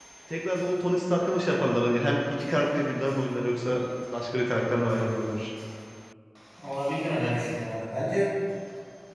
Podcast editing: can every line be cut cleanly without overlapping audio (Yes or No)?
Yes